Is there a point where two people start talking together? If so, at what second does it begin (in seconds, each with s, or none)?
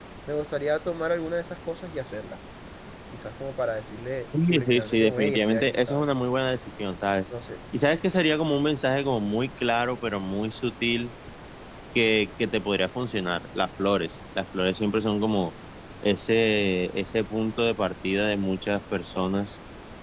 4.3 s